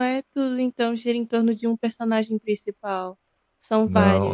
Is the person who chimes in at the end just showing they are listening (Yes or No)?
No